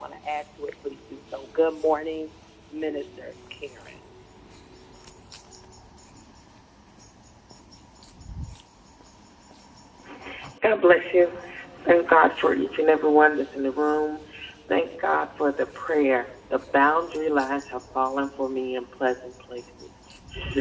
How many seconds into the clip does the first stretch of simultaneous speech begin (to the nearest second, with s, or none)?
none